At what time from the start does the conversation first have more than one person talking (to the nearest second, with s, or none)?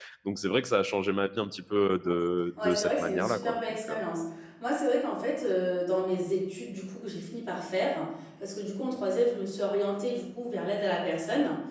3 s